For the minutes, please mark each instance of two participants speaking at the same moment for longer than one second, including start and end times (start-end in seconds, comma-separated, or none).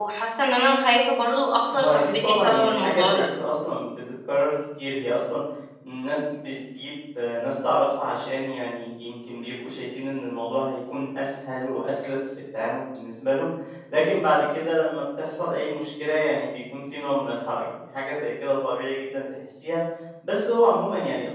1.8-3.2